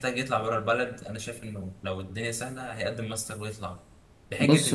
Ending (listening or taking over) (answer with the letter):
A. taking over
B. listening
B